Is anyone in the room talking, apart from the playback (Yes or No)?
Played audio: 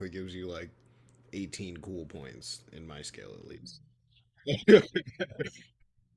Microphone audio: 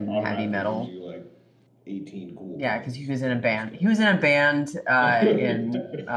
Yes